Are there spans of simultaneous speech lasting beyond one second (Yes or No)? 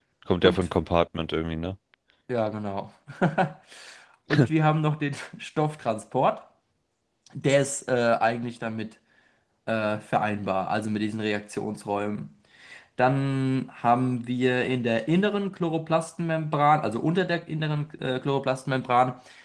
No